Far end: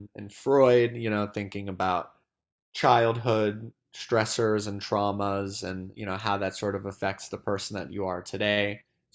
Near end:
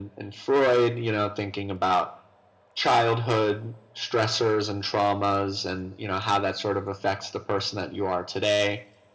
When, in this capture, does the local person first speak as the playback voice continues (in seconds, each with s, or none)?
none